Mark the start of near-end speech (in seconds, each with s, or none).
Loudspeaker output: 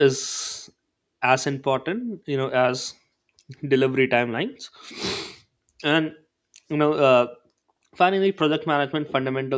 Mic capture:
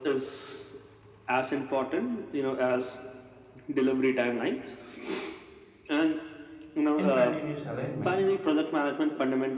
6.9 s